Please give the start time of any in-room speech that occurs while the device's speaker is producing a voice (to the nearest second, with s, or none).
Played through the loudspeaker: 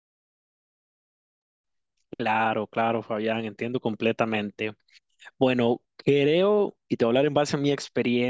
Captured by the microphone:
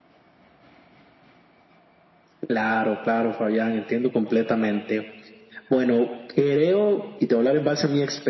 none